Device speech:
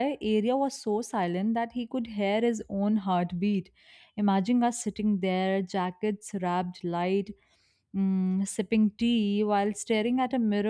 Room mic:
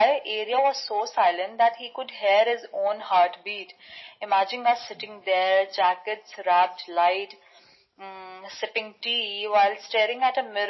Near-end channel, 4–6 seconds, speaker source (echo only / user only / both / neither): echo only